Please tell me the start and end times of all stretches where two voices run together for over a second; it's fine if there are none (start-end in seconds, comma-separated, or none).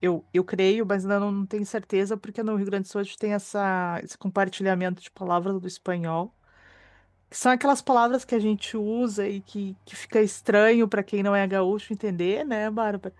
none